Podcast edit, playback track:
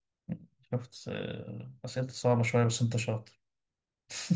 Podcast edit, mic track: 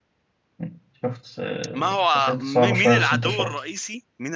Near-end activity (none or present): present